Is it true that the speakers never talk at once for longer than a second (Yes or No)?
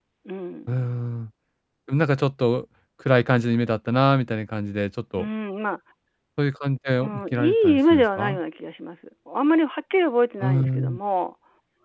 No